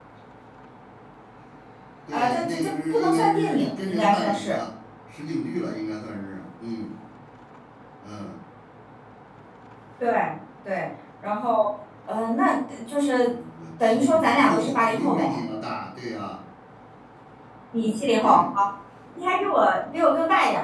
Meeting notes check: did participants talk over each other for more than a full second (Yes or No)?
Yes